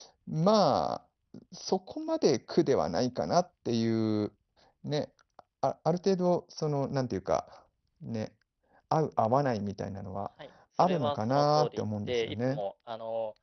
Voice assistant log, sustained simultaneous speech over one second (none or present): present